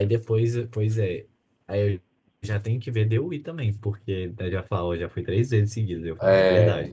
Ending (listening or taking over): taking over